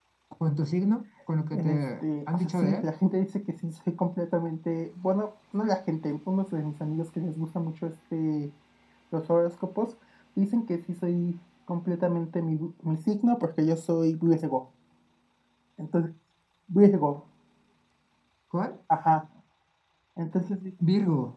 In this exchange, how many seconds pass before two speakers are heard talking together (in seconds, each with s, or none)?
1.5 s